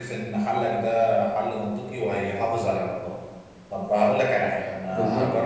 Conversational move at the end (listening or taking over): listening